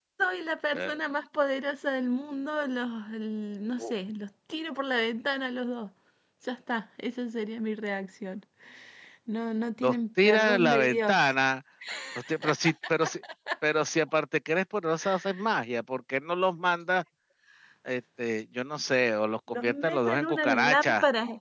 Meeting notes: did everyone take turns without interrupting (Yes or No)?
No